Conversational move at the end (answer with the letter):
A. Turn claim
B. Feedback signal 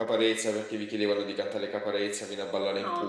A